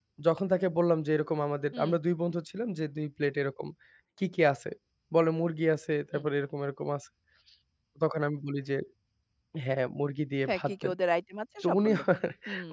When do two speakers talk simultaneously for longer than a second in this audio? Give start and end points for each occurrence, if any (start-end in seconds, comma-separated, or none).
none